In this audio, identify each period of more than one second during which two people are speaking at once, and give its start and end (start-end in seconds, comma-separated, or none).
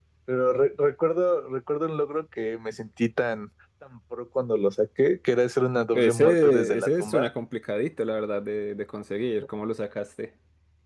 5.9-7.3